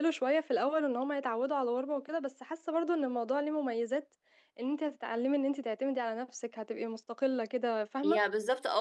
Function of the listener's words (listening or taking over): taking over